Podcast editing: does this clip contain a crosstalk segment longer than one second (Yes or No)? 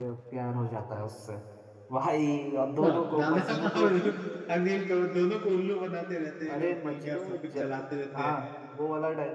Yes